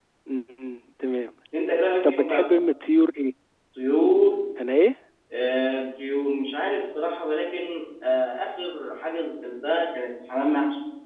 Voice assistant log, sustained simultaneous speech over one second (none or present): none